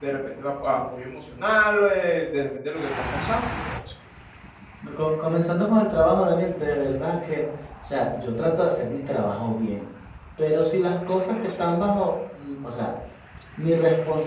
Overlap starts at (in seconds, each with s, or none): none